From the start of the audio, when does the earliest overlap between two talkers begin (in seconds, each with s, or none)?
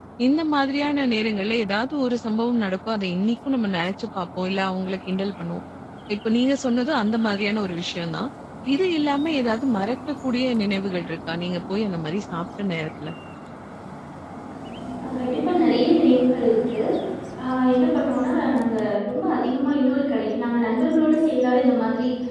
none